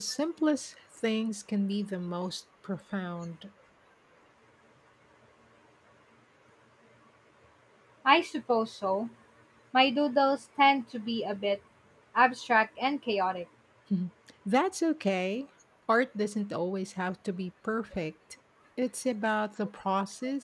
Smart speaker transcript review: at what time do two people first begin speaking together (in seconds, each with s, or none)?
none